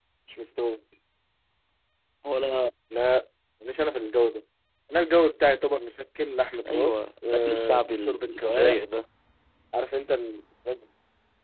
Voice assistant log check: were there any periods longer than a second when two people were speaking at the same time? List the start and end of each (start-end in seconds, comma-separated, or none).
6.7-8.8